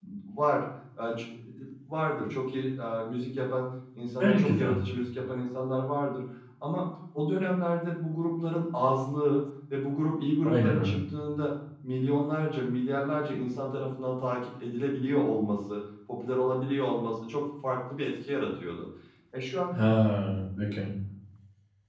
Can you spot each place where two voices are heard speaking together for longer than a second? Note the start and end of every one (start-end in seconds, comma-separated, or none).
none